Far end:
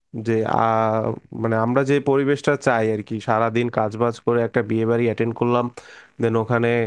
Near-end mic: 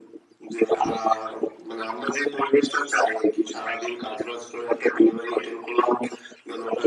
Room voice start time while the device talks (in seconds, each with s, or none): none